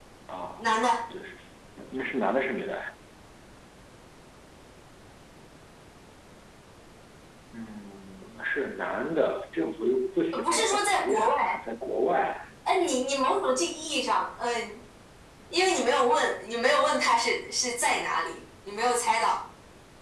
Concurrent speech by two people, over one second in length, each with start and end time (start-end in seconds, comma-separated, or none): 10.3-11.6